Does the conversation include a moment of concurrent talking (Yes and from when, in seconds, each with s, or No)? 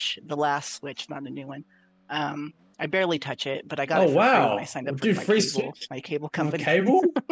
Yes, from 3.9 s